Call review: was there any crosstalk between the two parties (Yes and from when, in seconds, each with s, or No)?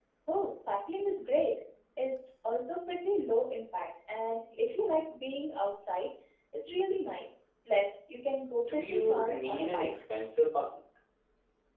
Yes, from 8.6 s